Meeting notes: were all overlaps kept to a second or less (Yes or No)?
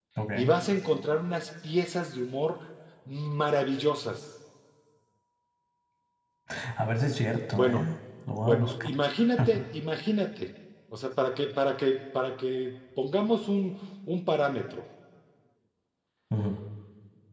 Yes